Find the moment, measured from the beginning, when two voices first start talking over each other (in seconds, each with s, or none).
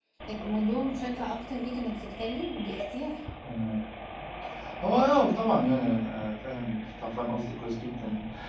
none